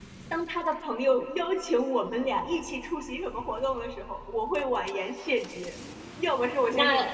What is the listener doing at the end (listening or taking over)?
listening